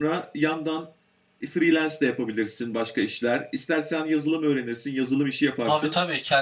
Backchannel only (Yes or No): No